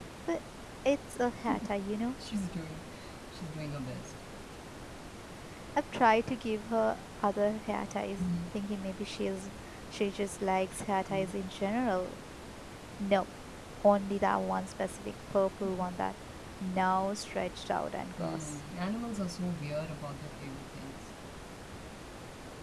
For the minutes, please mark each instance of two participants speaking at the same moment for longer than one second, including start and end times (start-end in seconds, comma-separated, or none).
none